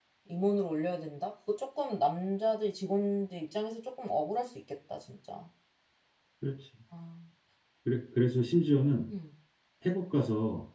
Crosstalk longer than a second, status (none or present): none